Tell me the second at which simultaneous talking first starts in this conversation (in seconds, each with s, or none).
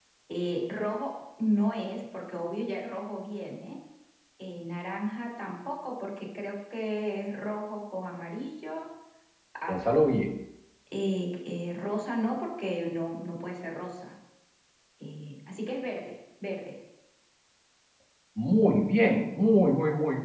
none